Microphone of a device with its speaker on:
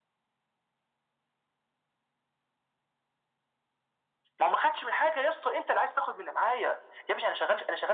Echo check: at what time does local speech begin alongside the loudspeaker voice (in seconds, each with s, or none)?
none